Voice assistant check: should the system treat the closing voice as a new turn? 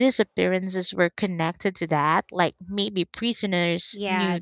Yes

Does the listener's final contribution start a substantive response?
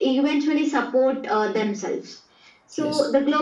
No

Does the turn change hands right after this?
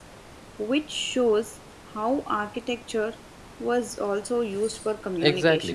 Yes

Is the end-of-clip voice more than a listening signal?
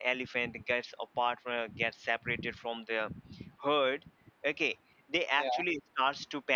No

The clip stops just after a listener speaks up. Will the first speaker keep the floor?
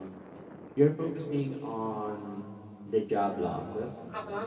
Yes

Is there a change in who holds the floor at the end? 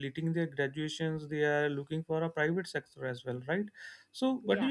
No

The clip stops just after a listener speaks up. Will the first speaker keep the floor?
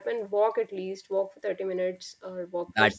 No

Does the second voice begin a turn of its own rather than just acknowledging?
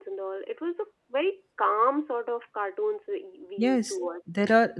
Yes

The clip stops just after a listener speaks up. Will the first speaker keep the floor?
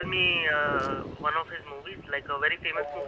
No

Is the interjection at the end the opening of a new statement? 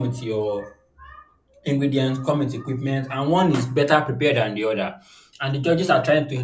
No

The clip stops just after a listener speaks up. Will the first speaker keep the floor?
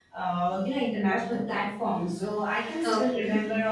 Yes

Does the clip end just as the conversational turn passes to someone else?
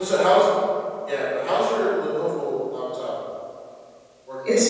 Yes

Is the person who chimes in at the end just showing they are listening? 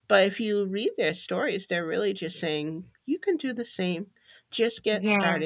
No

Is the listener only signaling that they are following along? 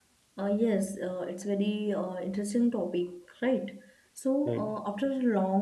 Yes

